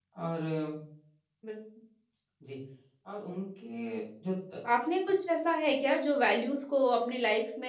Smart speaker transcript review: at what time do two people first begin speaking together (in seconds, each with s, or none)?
none